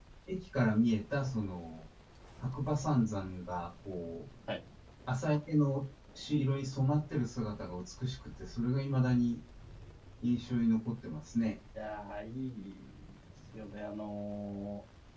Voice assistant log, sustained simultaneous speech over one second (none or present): none